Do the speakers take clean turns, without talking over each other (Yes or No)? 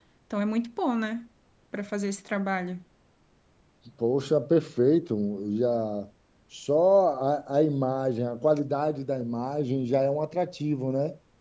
Yes